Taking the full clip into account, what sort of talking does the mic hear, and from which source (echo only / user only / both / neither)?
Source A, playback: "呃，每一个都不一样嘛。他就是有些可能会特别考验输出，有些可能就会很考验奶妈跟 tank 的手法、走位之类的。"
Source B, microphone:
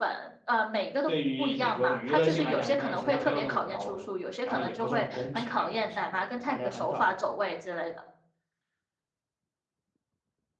both